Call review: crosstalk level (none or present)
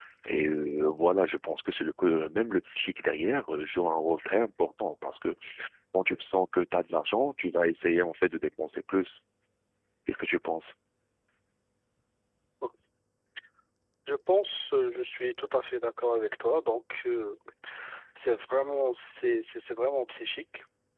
none